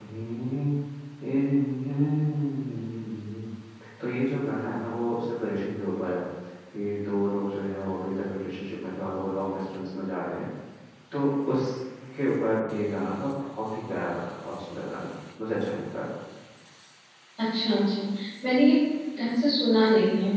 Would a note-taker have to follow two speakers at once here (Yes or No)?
No